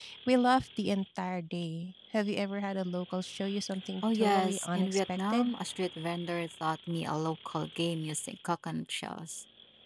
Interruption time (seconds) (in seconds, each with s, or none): 4.0 s